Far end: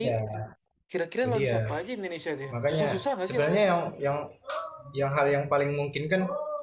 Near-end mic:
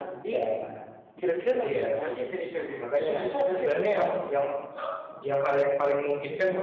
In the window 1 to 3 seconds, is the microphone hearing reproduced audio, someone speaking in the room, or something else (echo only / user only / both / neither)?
echo only